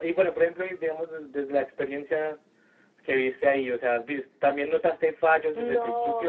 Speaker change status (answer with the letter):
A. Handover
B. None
A